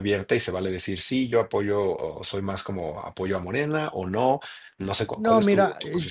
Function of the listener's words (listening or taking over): taking over